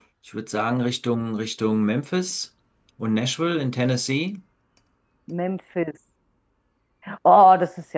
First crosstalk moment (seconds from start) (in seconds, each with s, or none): none